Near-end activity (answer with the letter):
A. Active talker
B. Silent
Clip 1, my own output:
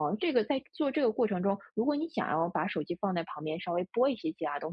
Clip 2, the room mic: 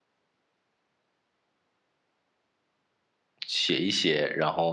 A